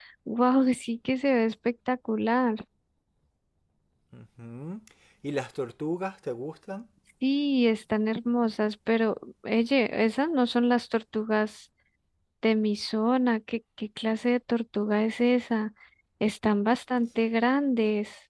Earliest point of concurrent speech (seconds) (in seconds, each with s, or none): none